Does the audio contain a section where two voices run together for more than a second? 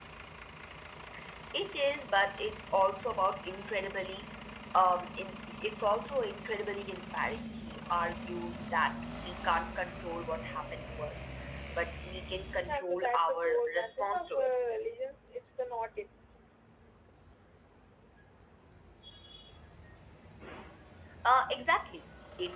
Yes, from 12.7 s

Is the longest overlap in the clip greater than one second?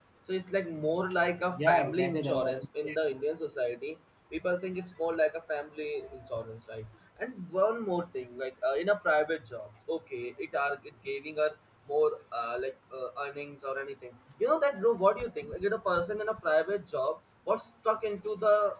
Yes, from 1.6 s

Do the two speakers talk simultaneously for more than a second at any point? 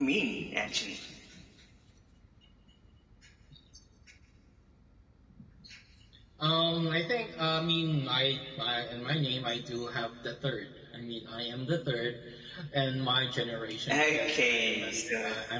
Yes, from 13.9 s

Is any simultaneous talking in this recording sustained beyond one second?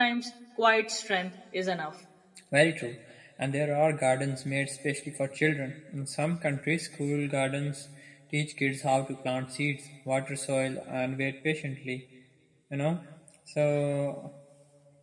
No

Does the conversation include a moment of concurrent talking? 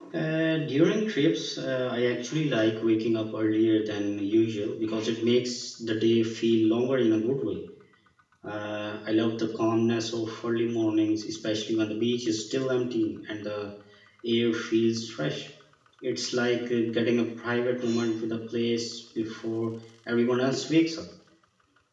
No

